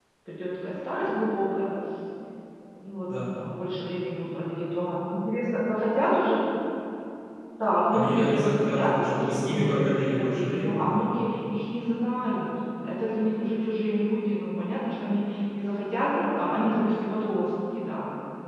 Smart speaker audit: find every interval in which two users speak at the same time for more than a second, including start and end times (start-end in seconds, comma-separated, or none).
7.9-11.0